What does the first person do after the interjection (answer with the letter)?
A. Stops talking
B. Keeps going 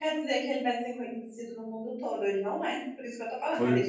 A